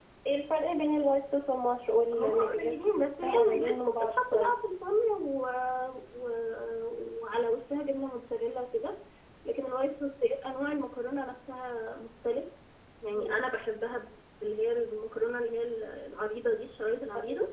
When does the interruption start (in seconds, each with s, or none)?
2.1 s